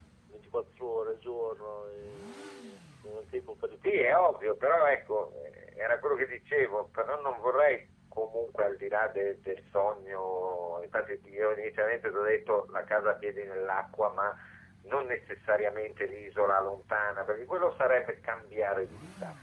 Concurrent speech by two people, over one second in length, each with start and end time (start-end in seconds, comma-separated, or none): none